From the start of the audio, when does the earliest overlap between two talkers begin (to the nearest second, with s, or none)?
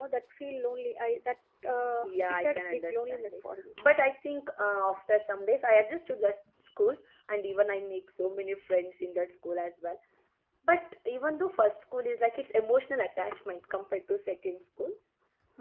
2 s